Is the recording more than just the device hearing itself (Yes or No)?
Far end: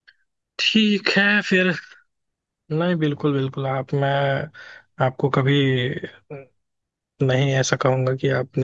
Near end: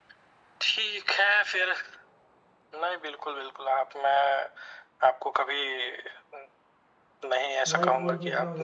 Yes